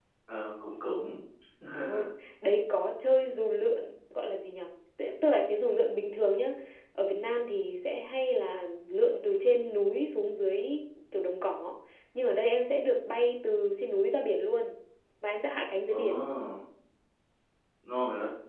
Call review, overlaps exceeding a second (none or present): none